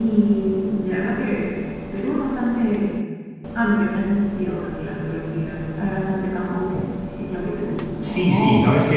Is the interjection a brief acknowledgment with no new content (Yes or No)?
No